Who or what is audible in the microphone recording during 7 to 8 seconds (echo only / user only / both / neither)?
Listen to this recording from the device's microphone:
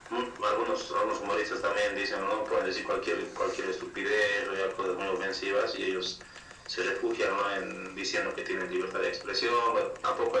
echo only